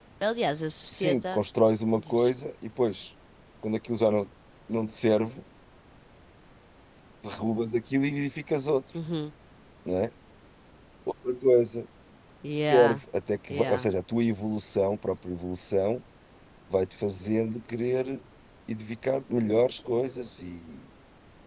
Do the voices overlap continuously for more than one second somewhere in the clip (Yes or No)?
No